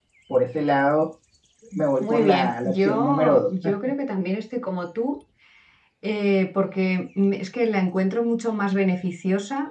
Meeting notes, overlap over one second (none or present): present